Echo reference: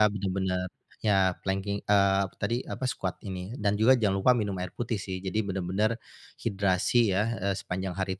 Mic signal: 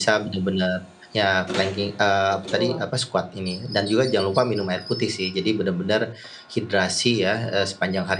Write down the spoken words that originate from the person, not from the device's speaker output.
betul.

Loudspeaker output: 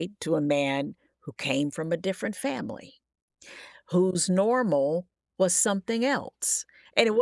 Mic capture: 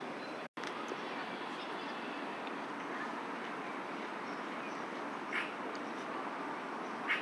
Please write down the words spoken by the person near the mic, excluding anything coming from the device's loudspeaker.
none

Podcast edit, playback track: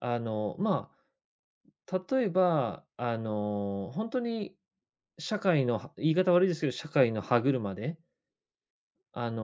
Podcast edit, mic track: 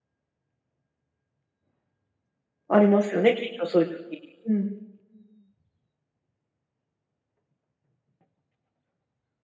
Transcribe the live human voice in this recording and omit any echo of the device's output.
ありますよね、きっとそういう時。うん。

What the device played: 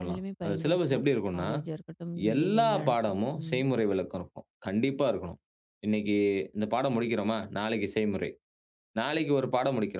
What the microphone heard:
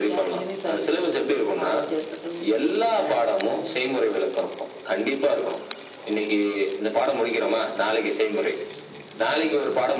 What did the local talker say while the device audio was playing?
none

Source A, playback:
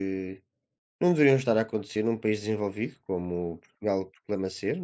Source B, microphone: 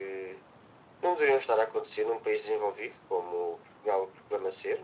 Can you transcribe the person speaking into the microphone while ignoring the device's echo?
none

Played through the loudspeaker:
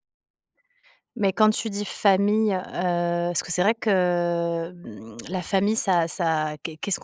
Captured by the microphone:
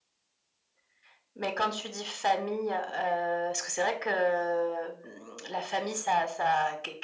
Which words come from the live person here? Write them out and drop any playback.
none

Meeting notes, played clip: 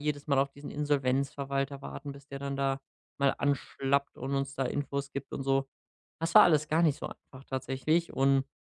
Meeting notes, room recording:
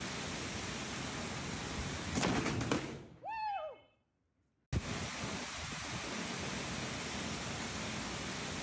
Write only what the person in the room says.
none

